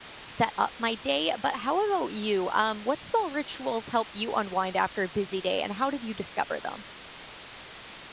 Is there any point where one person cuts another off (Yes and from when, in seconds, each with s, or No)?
No